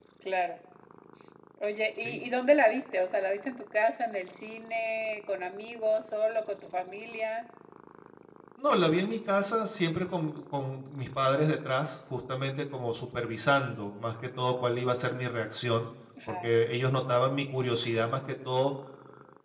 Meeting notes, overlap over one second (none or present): none